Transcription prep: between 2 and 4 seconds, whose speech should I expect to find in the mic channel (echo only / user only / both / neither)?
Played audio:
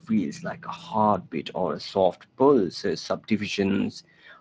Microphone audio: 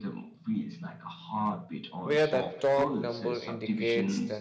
both